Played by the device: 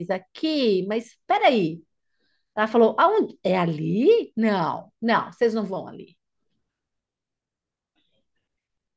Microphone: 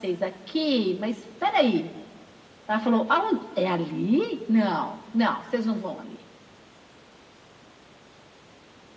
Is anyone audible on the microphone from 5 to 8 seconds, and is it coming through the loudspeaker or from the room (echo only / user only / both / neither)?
echo only